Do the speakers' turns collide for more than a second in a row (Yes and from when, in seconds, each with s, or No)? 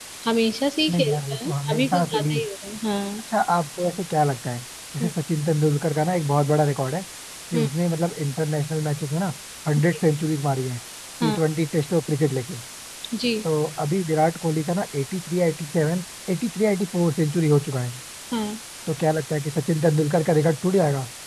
Yes, from 0.9 s